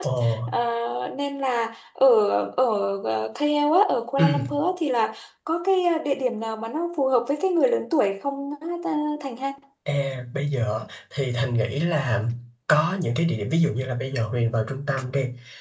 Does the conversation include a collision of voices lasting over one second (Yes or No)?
No